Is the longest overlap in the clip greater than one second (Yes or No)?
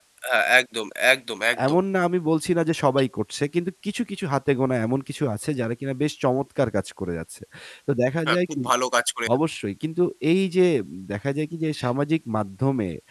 No